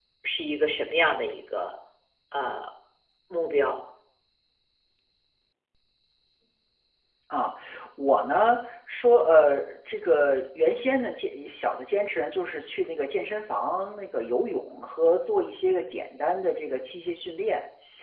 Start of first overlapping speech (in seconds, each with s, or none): none